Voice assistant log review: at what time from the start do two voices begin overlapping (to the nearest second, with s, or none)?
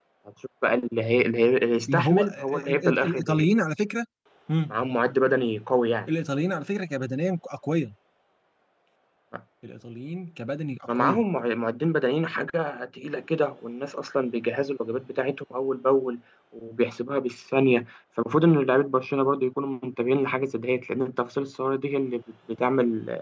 2 s